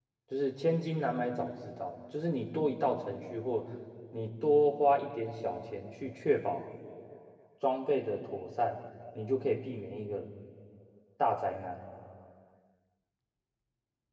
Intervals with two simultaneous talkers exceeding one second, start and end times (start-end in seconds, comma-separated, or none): none